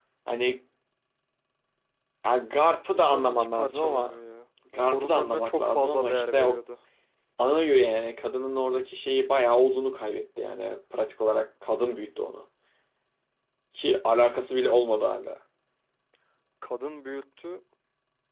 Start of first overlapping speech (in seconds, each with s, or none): 2.9 s